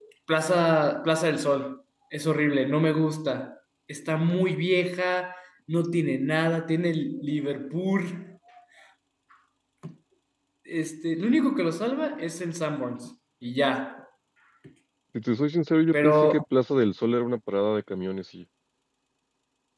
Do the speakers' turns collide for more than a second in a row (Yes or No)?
No